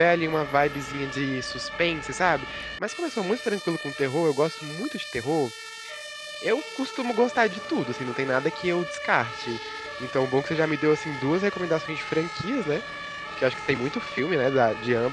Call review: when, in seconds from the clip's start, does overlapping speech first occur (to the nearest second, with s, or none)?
none